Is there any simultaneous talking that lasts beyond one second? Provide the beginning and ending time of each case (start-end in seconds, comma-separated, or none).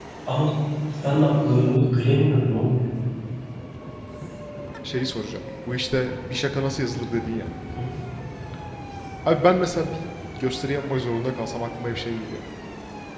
none